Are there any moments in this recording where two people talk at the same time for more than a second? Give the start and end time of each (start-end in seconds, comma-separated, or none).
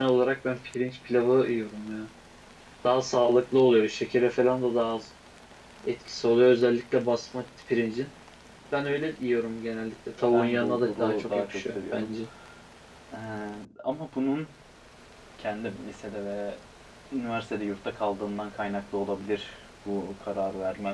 10.3-12.1